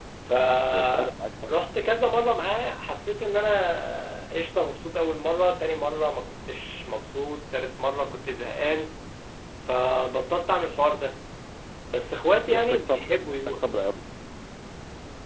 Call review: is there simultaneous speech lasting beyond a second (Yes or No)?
Yes